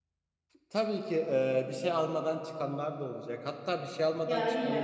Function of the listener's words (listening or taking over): listening